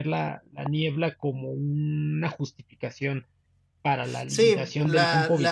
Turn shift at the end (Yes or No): Yes